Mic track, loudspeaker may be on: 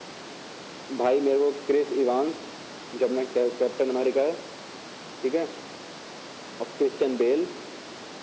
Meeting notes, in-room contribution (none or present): none